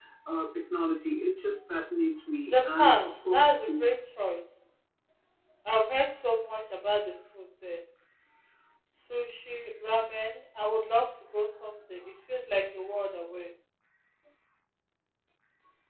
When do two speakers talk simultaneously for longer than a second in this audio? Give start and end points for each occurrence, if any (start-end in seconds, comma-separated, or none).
2.5-3.9